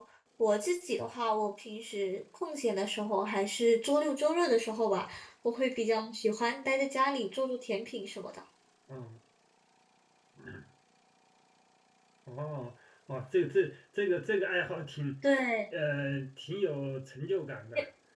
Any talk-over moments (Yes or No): No